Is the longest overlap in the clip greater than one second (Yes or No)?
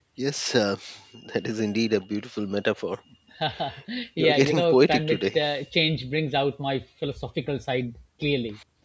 Yes